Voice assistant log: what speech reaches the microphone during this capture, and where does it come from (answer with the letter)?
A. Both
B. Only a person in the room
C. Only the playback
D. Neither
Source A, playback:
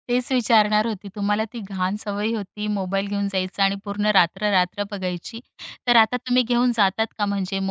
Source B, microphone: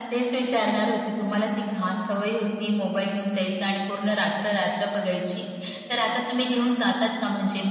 C